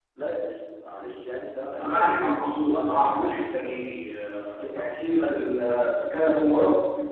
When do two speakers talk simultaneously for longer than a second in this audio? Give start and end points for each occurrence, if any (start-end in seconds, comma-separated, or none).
1.8-3.7